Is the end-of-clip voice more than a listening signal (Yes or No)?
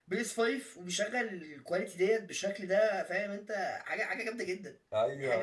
Yes